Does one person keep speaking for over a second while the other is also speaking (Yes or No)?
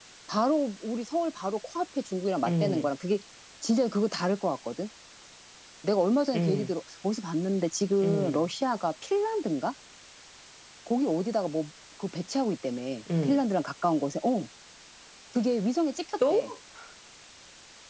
No